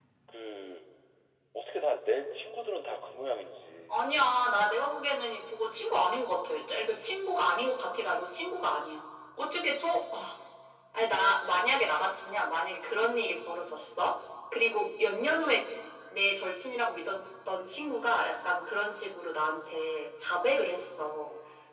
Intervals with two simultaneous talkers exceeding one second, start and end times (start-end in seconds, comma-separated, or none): none